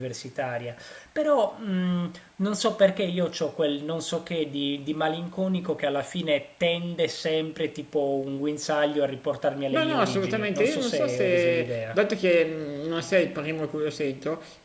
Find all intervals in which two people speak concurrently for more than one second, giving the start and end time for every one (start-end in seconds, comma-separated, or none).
9.7-12.0